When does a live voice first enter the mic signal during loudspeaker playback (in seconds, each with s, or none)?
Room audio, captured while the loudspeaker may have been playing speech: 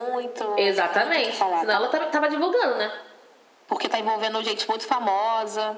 0.6 s